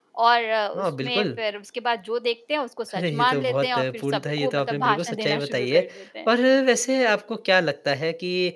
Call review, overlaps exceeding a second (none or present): present